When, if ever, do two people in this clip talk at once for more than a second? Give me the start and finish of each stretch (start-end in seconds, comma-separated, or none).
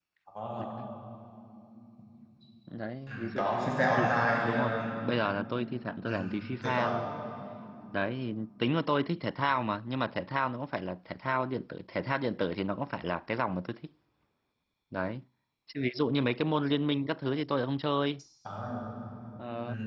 3.1-4.8